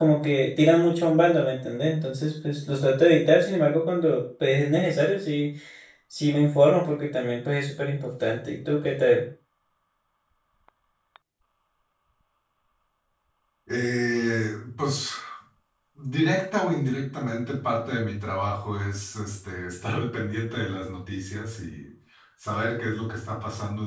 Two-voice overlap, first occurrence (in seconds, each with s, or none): none